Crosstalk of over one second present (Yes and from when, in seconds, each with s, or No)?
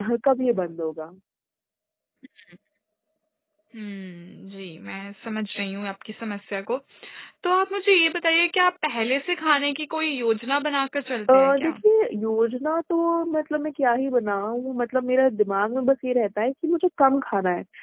No